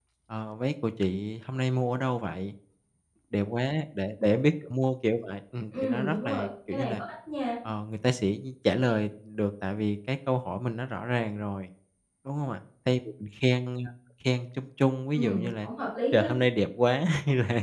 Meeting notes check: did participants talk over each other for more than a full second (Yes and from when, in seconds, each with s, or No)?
Yes, from 5.7 s